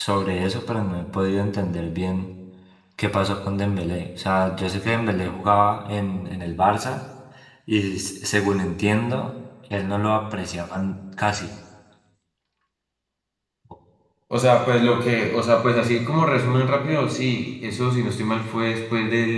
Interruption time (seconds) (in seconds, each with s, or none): none